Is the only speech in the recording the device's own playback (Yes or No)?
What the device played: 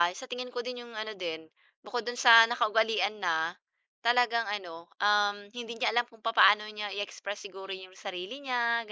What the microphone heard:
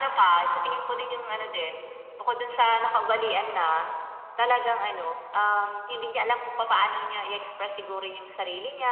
Yes